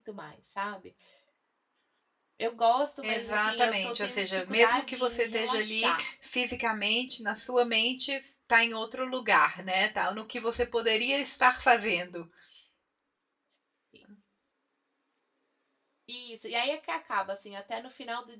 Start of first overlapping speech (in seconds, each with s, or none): 3.0 s